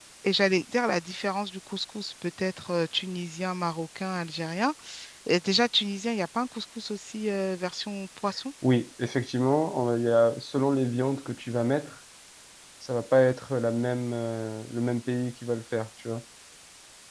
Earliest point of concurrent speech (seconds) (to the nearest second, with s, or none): none